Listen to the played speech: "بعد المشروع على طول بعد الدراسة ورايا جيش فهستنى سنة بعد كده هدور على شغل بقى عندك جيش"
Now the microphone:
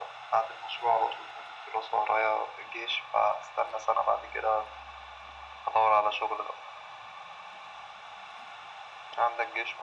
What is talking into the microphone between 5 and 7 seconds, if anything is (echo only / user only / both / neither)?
echo only